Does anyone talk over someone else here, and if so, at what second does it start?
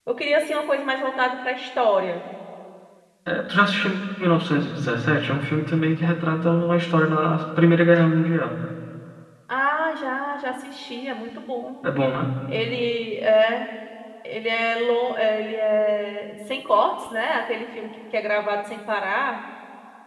none

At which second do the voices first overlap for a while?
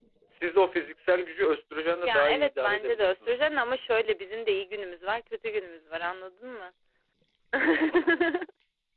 2.0 s

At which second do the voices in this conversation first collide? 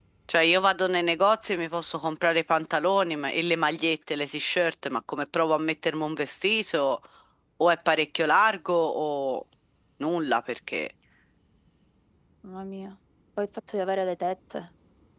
none

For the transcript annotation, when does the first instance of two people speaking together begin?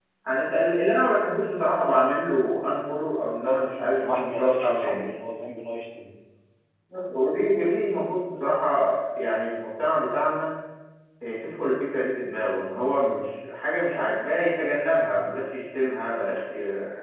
3.4 s

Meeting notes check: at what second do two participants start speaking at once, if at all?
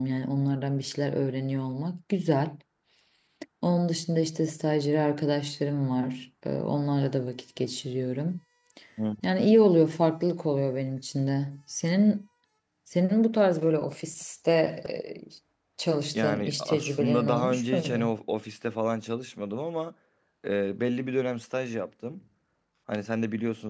16.1 s

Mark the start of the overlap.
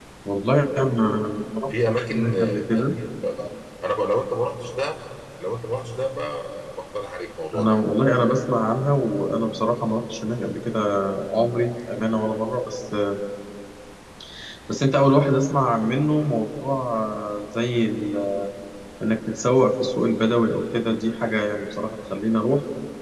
1.7 s

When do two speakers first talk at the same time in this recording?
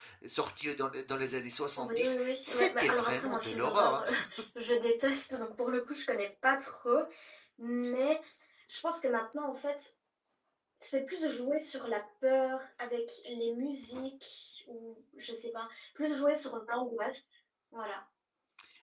1.8 s

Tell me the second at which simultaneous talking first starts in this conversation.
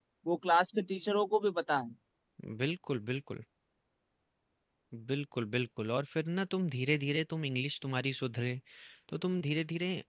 none

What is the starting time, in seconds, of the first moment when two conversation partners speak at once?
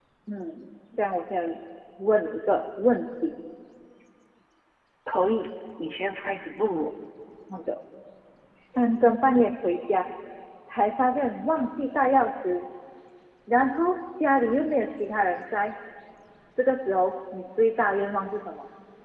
none

